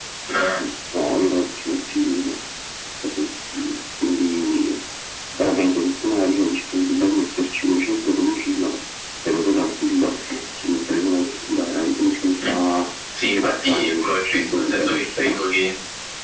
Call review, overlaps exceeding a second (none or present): present